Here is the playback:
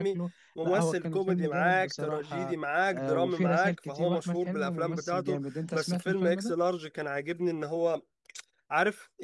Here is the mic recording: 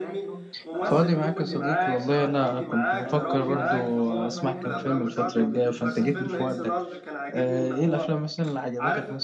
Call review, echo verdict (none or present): present